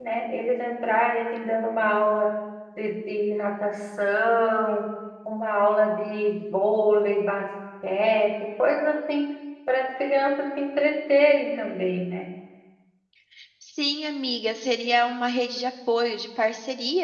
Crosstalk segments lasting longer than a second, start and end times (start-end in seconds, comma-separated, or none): none